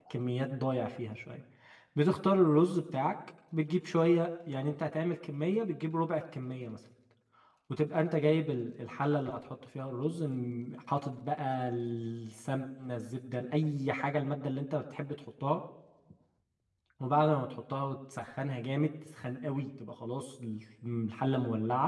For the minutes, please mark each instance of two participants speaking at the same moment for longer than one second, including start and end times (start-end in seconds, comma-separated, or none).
none